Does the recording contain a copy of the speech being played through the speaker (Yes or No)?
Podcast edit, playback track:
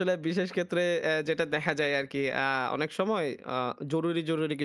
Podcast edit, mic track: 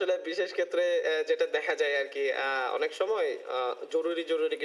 Yes